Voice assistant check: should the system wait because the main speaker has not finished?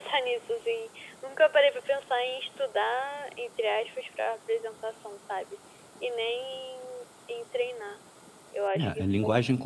No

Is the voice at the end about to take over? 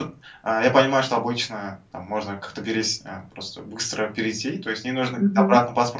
No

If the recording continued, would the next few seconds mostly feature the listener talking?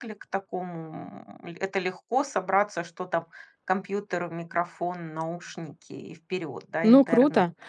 Yes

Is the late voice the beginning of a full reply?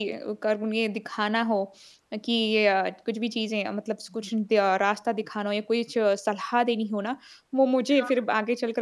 No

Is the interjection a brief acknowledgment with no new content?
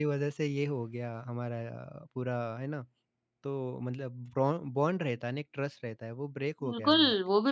No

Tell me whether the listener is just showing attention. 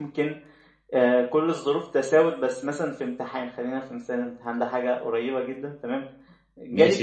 No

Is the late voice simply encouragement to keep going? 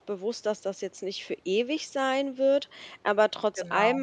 Yes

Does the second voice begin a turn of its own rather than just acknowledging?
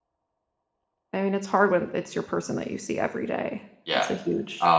Yes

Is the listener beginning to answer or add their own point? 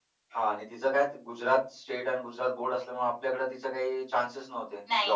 Yes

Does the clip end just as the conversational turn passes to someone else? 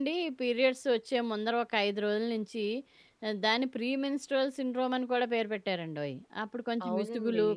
No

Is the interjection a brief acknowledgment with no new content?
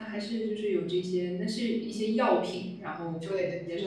No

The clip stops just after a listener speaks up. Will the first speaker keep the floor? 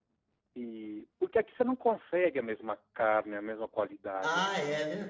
No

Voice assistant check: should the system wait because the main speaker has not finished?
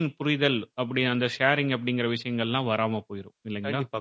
No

